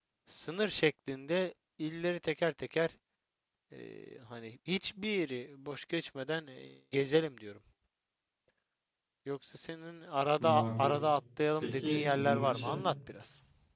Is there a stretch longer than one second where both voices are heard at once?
Yes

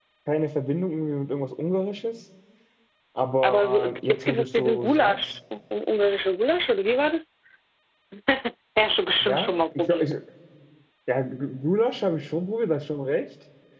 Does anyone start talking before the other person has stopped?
Yes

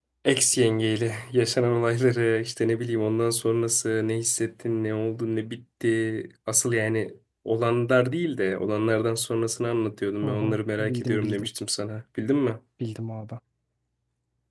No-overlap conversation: No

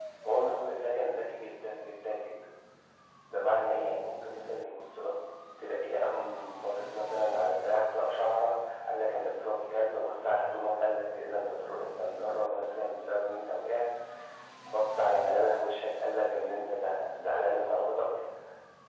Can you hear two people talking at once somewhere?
No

